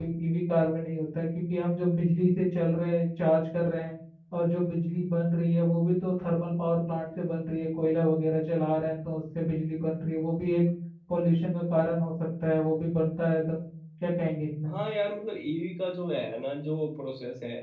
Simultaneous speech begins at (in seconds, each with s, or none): none